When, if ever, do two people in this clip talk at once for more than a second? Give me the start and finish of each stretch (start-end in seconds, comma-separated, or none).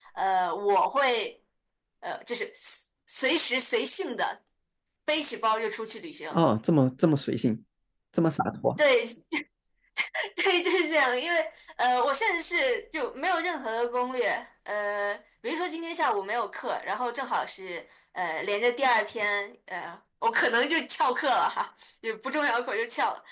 none